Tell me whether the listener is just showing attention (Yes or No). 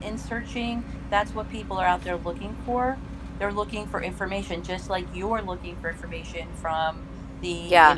Yes